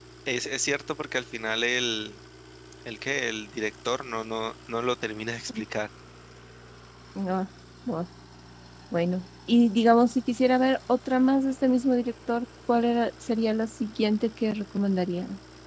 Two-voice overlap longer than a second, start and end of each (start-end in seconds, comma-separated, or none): none